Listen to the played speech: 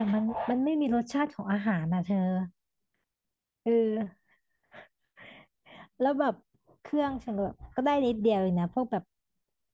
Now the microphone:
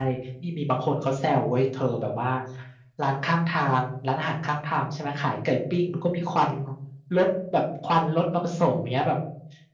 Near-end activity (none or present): present